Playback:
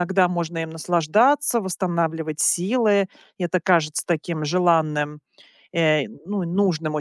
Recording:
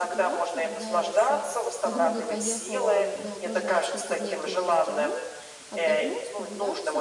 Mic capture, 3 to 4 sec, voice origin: both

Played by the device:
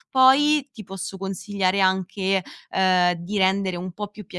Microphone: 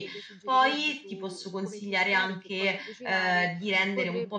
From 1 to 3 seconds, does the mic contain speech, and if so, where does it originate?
both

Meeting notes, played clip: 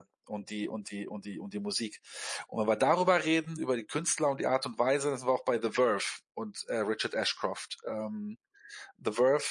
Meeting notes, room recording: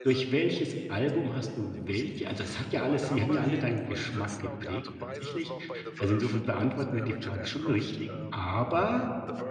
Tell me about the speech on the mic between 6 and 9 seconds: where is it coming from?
both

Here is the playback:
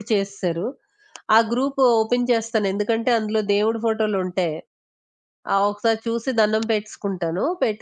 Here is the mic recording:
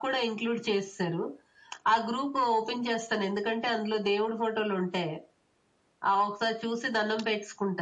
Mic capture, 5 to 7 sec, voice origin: echo only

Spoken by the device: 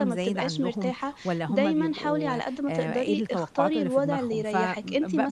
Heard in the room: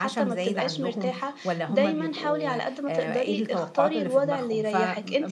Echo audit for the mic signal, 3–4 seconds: echo only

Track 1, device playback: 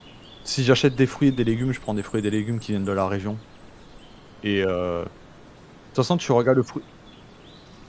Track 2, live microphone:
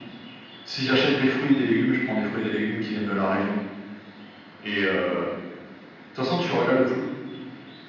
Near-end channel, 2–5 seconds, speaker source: echo only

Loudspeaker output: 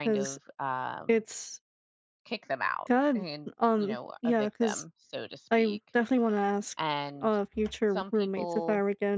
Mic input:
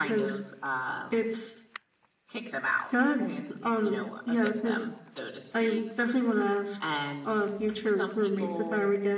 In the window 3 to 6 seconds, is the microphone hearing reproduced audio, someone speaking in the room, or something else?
echo only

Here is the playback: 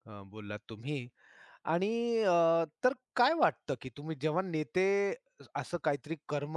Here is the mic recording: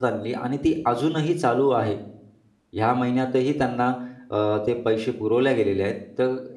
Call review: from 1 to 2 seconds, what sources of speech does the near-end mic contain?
user only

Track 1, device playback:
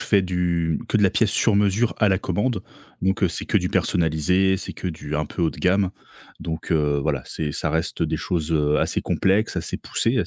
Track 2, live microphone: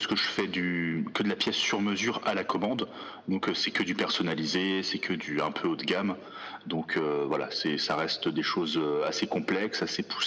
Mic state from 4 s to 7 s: echo only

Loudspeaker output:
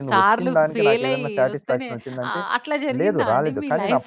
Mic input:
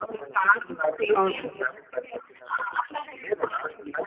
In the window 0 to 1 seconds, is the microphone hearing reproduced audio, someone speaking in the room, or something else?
echo only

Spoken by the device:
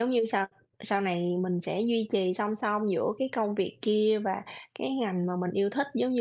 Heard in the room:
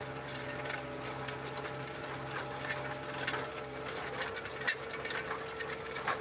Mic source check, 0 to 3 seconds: neither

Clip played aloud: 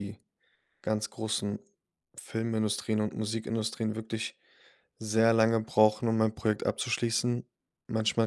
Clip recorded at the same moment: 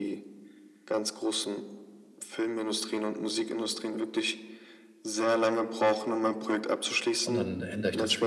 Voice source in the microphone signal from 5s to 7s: echo only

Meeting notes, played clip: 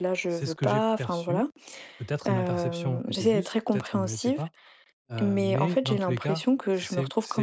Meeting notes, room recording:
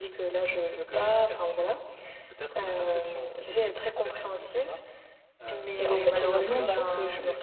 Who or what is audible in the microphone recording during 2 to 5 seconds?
echo only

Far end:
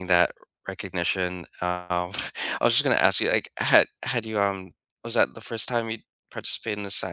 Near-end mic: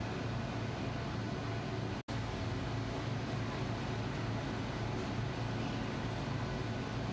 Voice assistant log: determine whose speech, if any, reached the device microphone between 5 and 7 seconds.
neither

